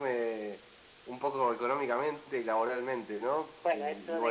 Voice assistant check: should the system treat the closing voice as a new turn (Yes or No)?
Yes